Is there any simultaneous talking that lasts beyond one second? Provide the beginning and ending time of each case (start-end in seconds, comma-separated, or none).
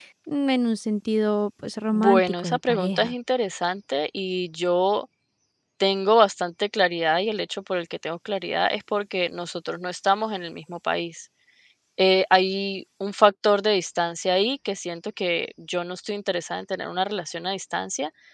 1.9-3.1